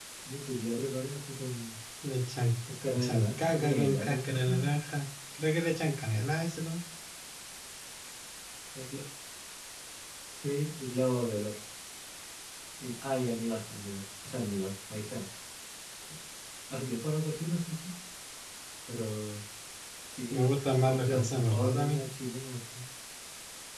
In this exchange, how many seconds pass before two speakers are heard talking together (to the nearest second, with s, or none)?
3 s